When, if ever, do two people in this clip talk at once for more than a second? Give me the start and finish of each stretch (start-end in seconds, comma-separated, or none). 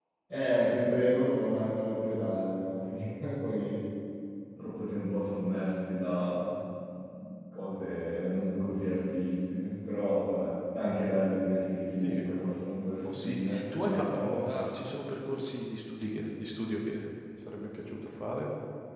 12.8-14.4